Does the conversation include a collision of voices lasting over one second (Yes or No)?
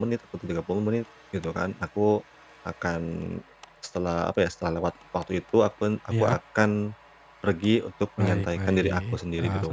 Yes